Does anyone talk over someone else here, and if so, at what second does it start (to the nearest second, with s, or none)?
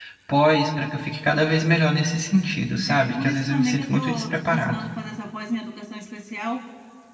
3 s